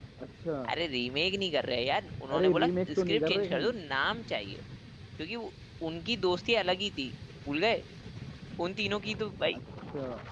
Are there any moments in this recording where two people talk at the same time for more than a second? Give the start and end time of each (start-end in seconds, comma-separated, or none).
2.4-3.8